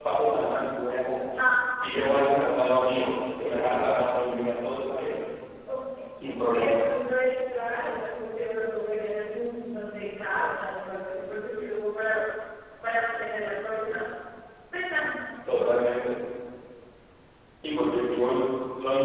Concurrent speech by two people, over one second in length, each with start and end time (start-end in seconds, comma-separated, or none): none